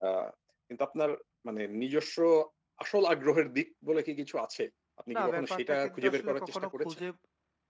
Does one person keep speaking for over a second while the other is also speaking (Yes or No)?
Yes